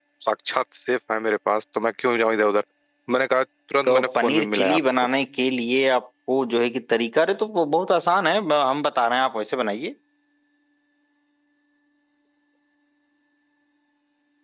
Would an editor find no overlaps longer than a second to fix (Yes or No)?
No